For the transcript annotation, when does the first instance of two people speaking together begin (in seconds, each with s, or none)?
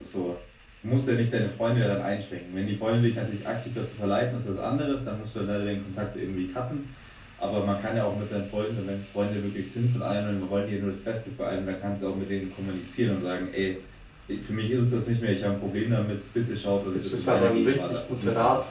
16.9 s